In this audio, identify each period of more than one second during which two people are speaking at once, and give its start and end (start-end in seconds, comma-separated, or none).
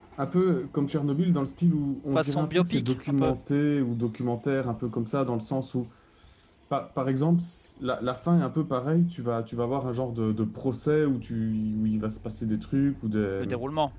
2.2-3.4